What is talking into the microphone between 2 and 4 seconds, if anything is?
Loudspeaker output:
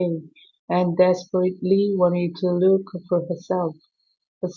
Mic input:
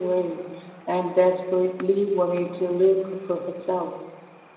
echo only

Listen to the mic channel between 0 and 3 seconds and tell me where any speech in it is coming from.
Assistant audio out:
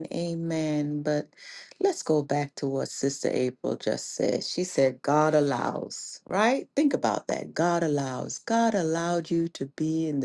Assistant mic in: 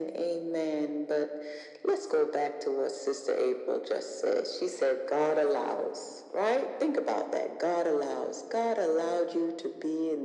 echo only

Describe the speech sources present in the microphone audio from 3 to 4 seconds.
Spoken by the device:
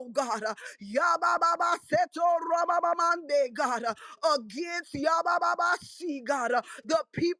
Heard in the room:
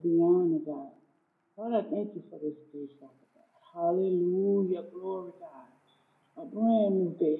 user only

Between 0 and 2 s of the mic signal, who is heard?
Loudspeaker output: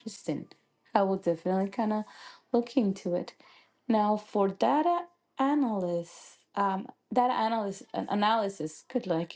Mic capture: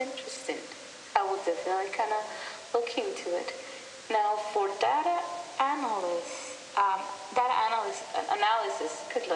echo only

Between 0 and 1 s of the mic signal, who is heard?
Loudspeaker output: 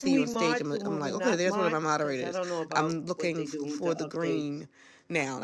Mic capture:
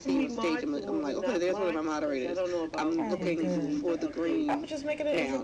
echo only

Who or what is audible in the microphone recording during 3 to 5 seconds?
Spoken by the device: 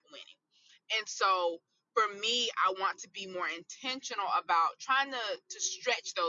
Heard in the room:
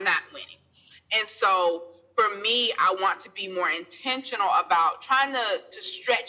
echo only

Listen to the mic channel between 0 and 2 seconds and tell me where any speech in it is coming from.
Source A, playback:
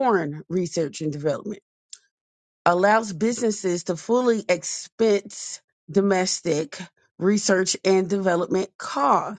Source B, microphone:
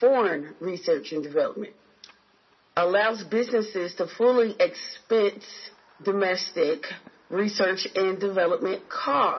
echo only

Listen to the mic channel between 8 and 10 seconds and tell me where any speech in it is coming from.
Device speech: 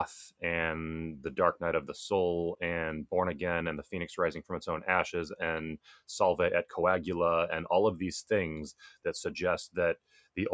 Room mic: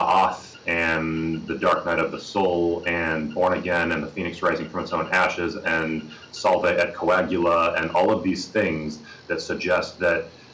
echo only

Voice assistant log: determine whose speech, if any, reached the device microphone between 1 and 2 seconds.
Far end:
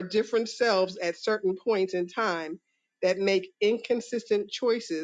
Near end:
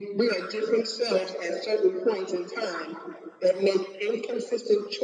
echo only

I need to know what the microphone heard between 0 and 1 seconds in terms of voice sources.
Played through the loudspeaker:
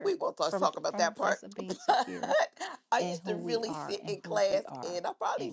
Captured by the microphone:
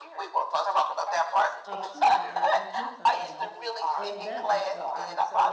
echo only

